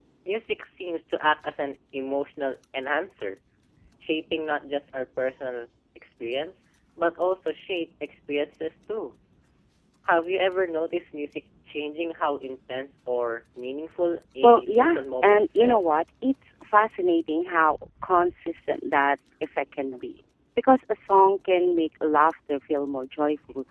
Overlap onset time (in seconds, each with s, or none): 14.4 s